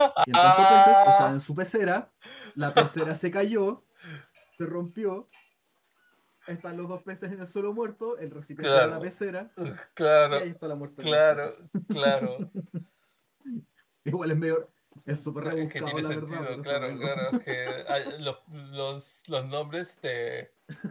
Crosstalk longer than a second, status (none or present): present